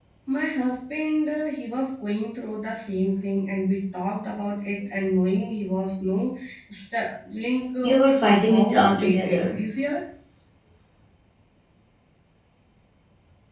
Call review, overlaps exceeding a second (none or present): present